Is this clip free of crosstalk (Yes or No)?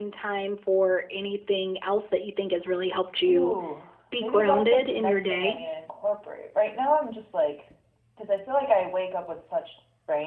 No